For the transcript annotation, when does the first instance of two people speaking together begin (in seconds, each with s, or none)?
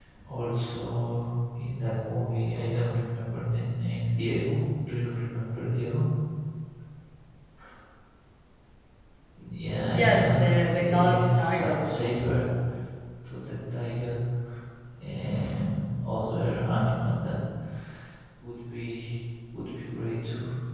9.9 s